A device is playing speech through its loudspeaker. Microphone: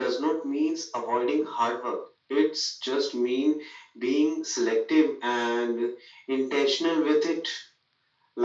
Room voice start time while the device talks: none

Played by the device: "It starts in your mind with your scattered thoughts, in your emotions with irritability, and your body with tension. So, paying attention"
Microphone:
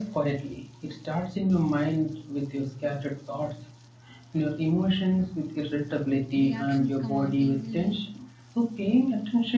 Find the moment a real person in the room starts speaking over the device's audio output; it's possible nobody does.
6.4 s

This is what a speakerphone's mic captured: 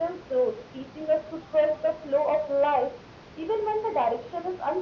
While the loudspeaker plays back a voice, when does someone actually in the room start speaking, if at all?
none

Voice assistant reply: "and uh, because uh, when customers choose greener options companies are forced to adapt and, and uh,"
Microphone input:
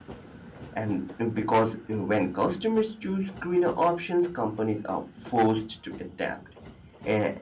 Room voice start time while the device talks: none

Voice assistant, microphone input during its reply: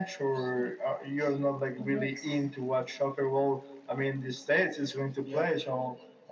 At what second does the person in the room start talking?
5.2 s

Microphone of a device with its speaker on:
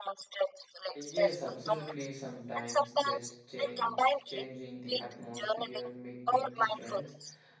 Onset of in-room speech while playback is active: 0.9 s

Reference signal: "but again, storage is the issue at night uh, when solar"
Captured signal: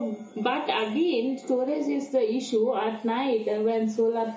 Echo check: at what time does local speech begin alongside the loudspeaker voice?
none

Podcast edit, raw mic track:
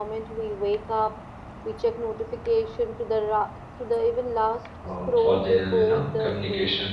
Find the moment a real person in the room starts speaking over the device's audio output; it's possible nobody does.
4.9 s

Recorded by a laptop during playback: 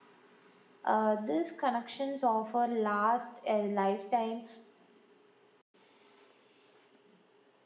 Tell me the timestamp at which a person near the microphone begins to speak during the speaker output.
0.8 s

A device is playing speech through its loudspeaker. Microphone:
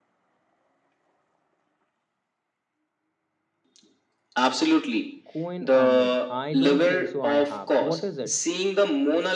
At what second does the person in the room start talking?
5.2 s

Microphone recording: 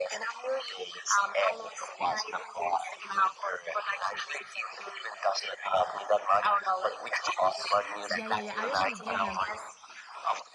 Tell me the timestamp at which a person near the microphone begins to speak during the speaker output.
8.1 s

